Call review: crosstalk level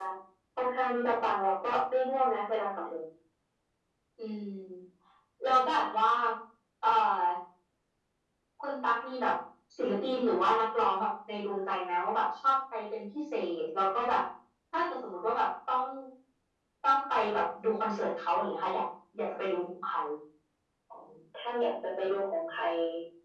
none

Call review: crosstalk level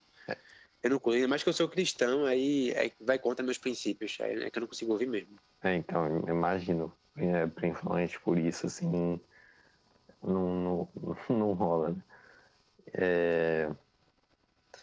none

